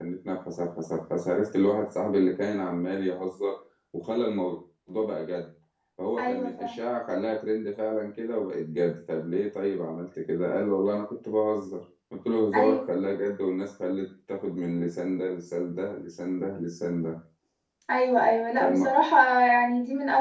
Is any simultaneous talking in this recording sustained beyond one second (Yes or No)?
No